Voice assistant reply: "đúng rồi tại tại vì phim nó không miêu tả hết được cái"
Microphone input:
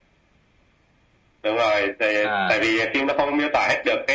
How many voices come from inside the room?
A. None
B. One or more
B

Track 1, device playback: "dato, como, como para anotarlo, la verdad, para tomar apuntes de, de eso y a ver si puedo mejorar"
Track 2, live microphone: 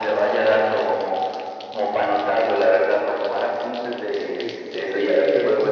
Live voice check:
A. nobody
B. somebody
B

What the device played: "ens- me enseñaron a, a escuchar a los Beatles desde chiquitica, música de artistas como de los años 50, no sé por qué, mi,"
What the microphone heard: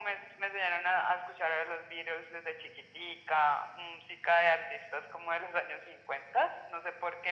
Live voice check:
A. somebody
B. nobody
B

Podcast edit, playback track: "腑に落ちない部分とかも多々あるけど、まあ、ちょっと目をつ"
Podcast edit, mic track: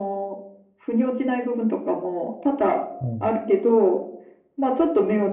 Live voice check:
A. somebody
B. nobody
A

